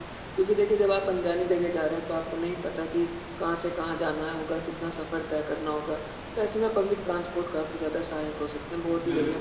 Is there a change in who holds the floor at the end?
No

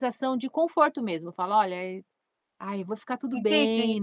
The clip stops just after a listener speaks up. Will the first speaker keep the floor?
No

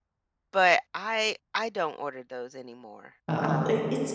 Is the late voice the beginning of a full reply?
Yes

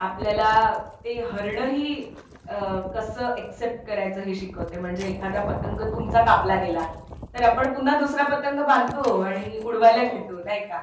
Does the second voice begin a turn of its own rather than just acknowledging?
No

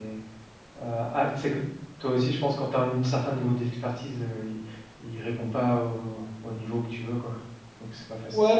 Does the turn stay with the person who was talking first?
No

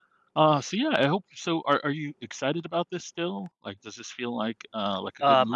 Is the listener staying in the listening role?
No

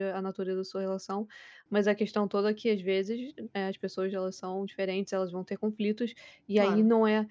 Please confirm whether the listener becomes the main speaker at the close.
No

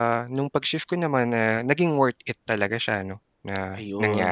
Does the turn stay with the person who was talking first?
No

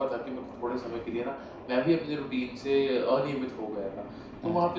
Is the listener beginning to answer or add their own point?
No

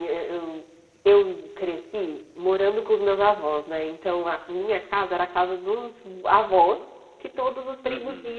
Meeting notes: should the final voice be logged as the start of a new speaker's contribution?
No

